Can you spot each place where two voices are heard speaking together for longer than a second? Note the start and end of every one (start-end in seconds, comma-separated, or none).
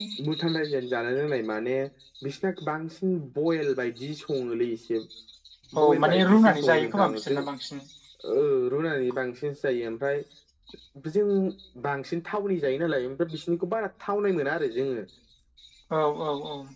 5.8-7.4